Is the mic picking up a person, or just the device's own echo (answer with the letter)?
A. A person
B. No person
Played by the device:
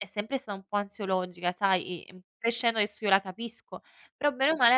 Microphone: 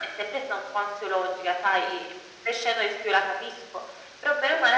B